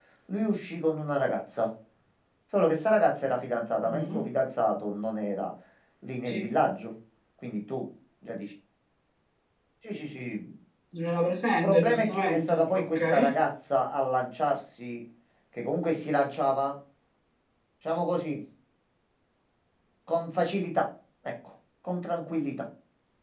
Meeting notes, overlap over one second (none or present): present